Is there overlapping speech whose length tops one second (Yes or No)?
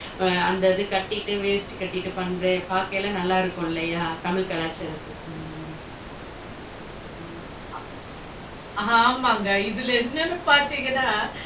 No